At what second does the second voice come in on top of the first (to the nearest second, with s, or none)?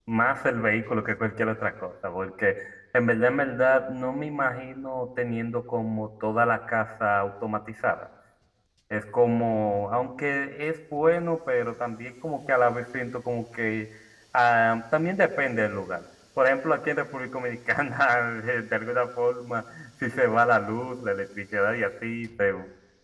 none